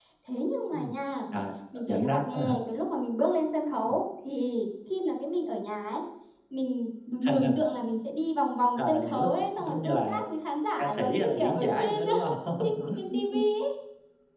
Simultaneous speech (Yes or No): Yes